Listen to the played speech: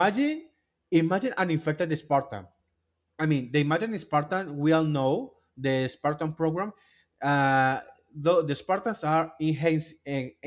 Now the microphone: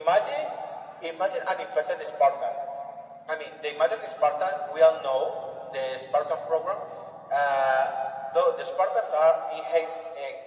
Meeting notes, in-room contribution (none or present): none